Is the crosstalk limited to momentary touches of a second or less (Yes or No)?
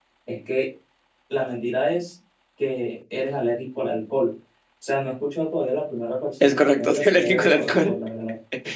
No